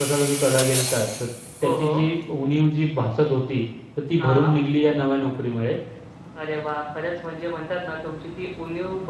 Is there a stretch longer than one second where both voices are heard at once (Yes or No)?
No